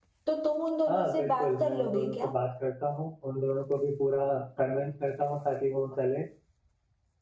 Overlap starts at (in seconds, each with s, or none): 0.9 s